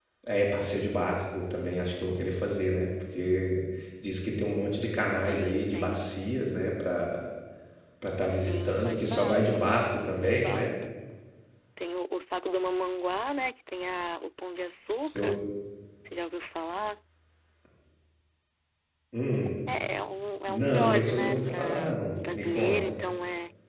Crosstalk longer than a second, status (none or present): present